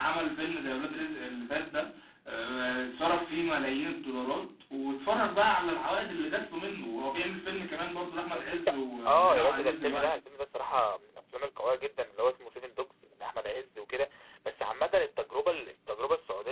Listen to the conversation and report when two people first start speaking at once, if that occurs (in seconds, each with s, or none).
8.3 s